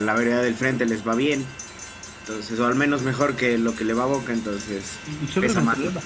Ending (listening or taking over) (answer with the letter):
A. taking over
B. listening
A